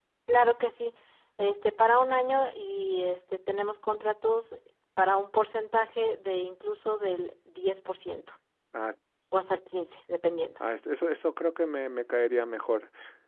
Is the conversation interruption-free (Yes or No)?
Yes